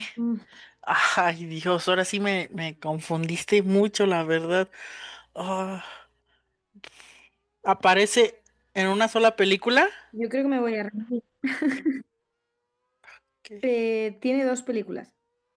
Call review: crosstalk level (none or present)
none